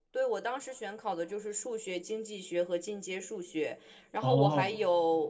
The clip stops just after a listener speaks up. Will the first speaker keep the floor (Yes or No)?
Yes